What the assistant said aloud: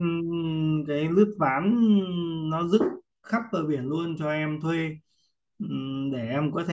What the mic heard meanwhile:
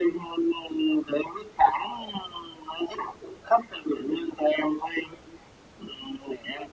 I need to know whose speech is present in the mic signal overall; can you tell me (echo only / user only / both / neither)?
echo only